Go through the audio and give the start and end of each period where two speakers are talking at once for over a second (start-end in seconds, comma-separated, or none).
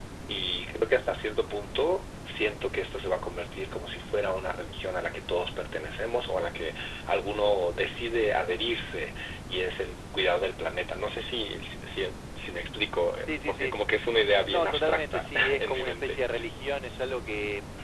14.4-16.2